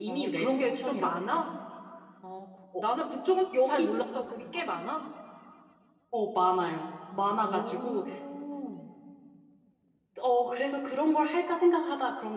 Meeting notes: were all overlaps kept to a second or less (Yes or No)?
No